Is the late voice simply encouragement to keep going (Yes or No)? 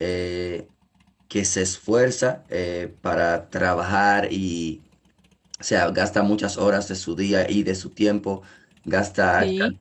Yes